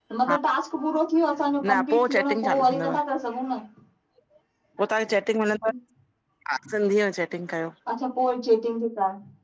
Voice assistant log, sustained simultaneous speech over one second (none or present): present